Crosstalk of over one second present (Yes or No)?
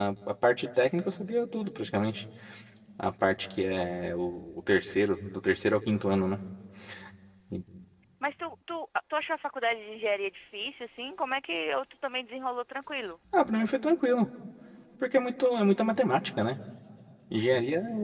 No